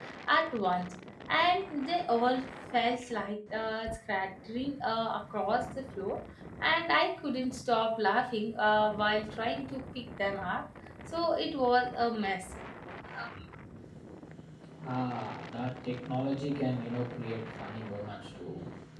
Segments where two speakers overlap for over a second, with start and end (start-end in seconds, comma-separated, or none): none